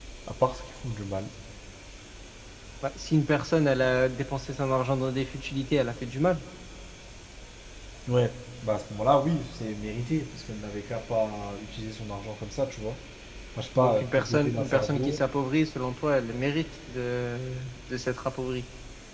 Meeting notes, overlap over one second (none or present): present